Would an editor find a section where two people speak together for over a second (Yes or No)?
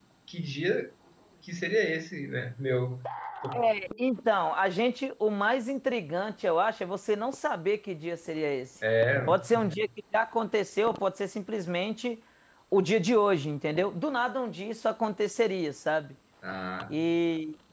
No